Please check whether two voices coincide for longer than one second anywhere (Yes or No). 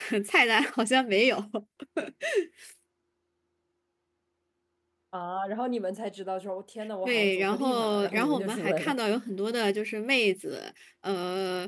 Yes